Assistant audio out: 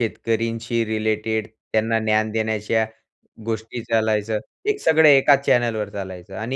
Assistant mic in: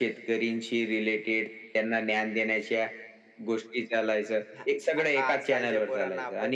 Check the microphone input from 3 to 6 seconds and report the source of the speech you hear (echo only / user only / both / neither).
both